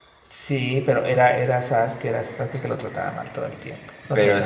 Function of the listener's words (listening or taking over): taking over